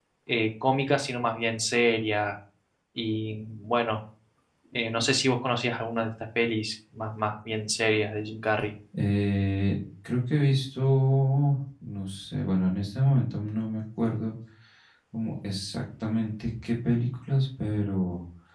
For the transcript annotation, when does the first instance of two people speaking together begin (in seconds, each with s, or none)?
none